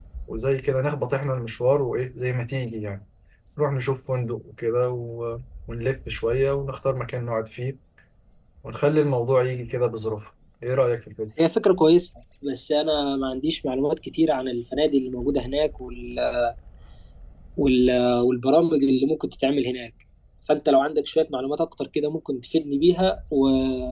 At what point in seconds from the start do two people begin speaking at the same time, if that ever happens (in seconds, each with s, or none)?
none